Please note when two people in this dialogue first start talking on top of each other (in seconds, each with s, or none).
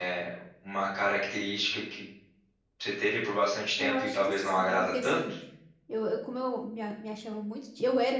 3.8 s